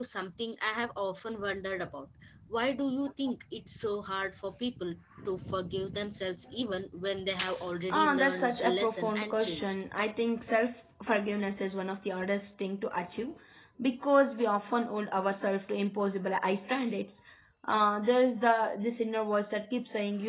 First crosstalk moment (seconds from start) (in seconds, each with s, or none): 7.9 s